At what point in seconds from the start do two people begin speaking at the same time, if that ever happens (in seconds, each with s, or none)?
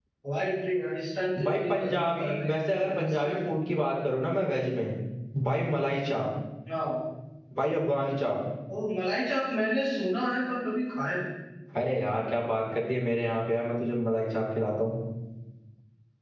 1.4 s